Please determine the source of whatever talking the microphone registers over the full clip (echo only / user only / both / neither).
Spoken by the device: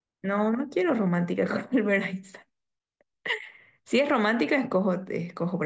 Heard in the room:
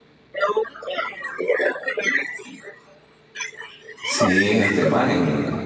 both